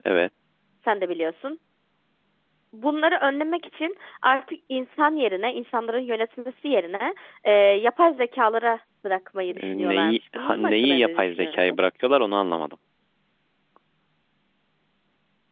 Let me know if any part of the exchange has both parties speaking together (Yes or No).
Yes